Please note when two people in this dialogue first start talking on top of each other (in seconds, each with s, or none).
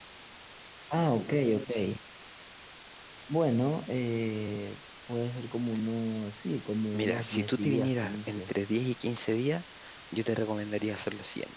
6.9 s